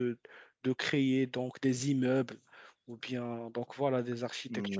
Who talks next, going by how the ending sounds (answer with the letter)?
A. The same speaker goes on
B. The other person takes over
B